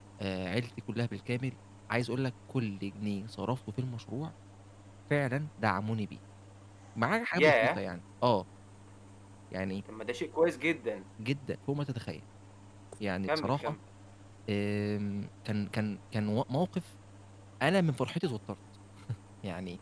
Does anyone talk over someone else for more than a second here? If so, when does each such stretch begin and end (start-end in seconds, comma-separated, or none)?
none